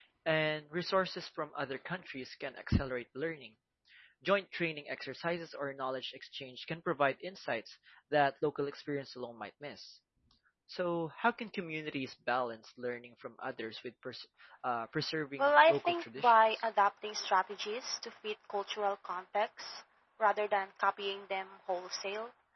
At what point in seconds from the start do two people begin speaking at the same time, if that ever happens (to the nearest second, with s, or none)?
15 s